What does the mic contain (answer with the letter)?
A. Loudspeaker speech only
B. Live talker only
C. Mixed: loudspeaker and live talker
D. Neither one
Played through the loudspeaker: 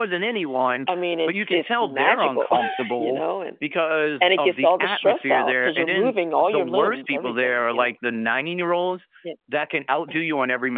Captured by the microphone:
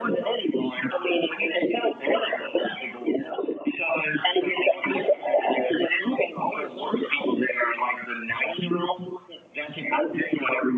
A